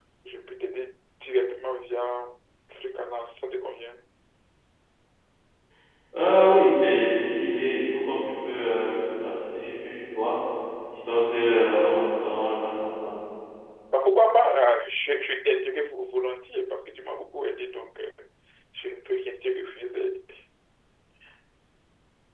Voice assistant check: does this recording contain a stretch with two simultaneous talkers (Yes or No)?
No